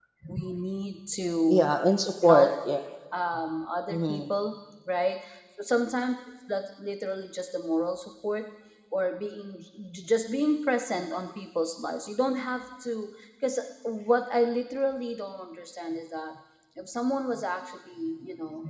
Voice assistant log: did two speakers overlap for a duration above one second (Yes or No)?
No